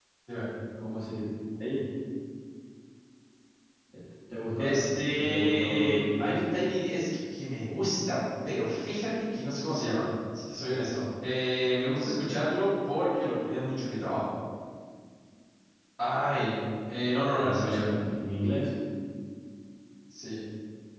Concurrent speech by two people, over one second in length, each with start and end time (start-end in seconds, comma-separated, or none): 4.6-6.4